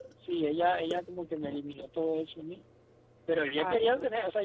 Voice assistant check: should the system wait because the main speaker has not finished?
Yes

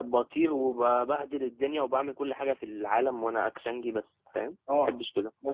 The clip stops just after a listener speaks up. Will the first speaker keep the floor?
No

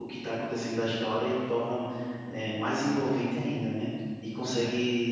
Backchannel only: Yes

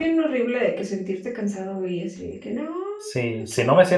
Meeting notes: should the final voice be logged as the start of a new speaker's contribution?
Yes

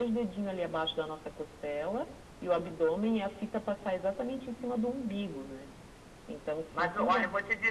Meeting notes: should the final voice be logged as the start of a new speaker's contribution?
Yes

